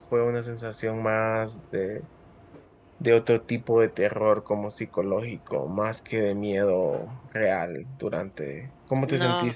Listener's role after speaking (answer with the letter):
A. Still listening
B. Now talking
B